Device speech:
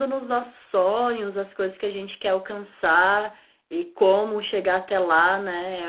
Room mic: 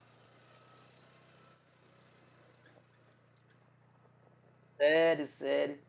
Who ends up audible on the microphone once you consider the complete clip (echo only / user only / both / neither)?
user only